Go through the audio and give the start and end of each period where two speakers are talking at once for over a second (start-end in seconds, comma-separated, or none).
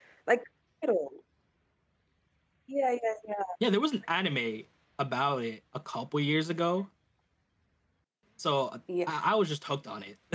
none